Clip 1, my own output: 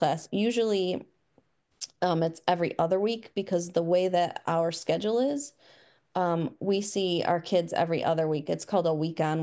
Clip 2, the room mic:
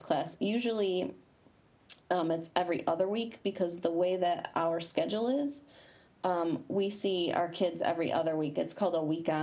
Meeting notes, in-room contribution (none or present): none